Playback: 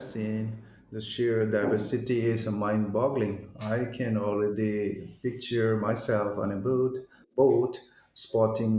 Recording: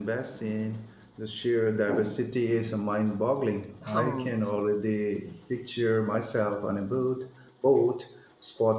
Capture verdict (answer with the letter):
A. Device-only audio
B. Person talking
B